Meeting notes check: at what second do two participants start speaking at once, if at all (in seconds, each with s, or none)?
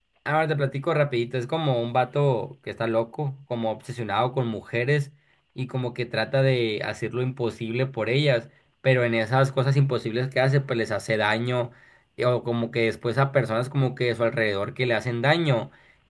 none